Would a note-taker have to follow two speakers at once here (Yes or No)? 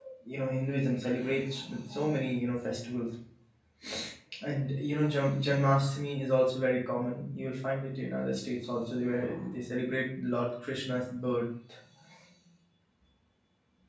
No